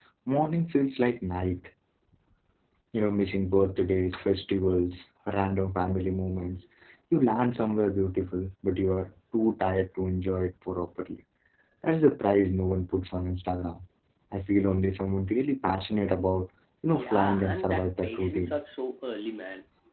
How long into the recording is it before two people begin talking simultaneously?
16.9 s

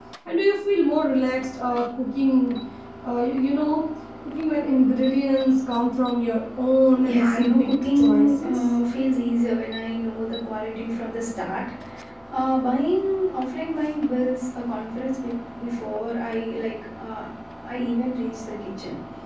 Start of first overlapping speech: 7.0 s

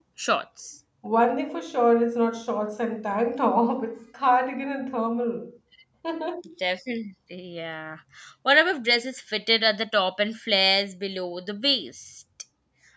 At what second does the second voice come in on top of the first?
none

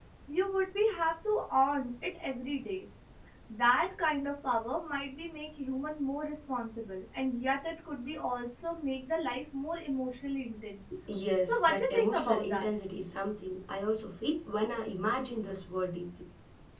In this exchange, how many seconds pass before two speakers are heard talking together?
11.4 s

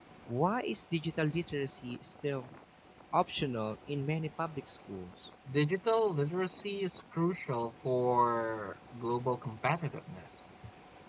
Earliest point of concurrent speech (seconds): none

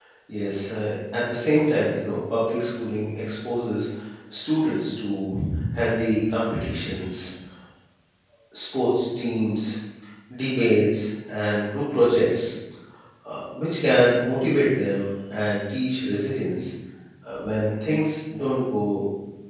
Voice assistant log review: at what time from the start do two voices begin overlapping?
none

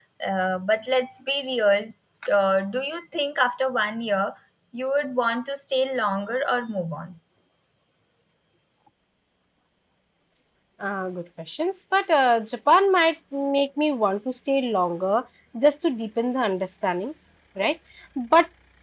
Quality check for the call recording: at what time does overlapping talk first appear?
none

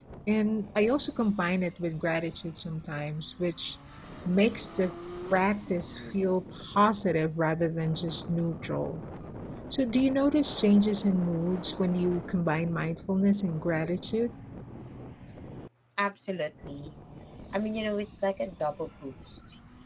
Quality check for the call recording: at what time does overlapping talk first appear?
none

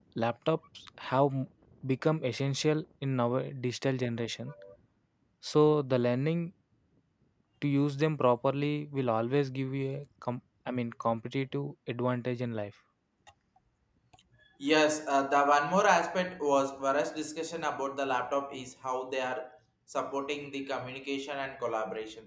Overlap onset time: none

